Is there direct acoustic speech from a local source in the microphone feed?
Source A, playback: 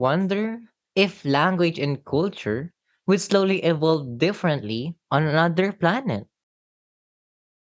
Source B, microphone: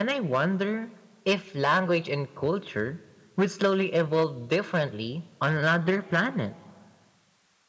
No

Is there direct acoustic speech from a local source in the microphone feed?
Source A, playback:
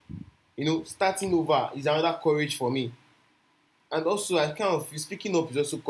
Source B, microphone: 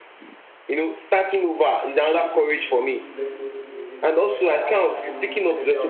Yes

